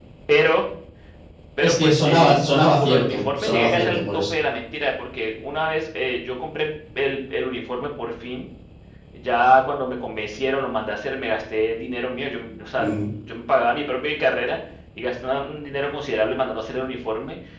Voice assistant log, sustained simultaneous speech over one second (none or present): present